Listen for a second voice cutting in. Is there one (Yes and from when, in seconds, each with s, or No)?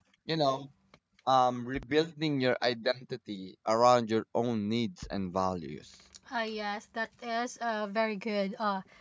No